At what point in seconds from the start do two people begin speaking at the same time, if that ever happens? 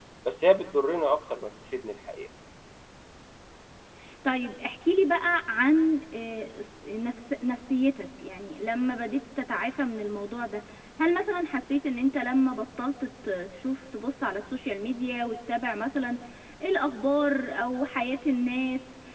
none

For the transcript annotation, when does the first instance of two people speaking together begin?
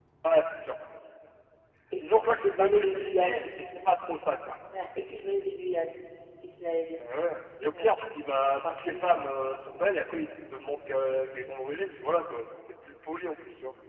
2.0 s

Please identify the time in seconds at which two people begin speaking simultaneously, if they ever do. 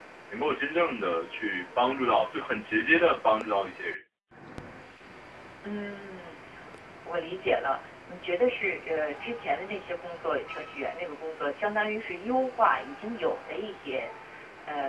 none

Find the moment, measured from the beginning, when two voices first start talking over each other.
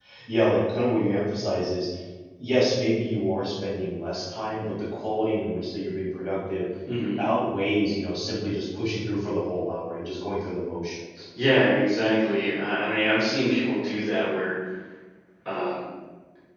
none

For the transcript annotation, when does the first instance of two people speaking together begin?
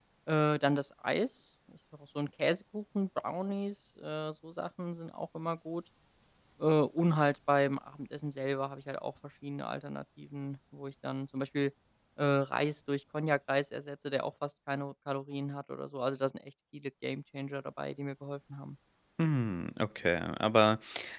none

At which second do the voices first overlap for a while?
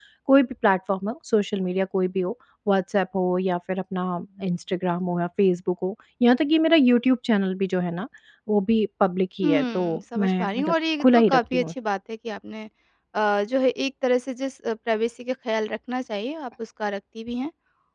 9.4 s

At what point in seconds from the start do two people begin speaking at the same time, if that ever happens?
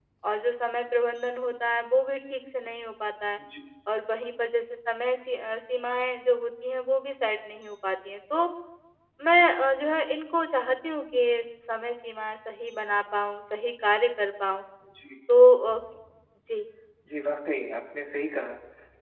none

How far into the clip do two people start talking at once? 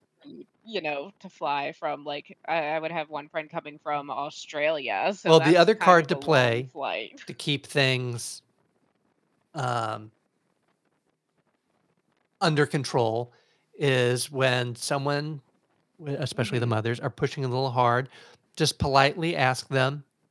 5.2 s

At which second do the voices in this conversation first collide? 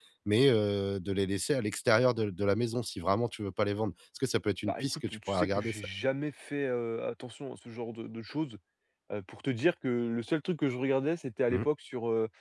4.7 s

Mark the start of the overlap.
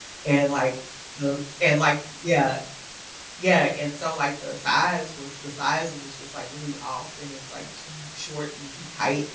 none

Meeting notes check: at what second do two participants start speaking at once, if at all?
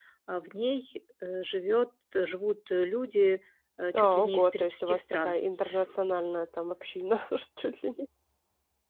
3.9 s

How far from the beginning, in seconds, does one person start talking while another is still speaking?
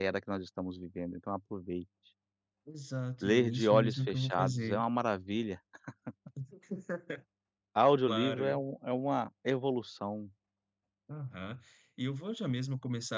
3.2 s

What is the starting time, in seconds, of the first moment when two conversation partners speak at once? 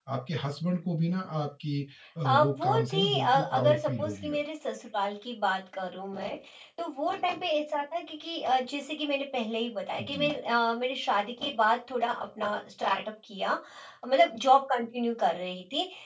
2.2 s

